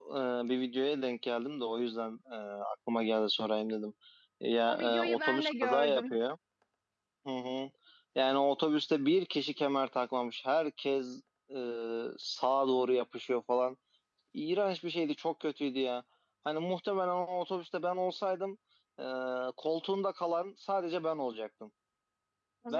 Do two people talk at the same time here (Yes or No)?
Yes